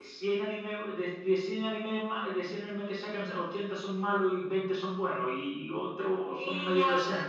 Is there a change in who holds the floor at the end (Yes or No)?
Yes